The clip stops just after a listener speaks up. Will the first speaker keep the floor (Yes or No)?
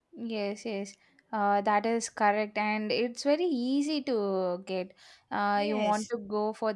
Yes